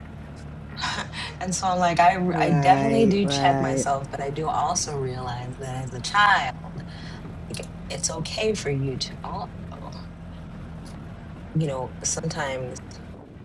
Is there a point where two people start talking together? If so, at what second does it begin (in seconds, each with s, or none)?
2.3 s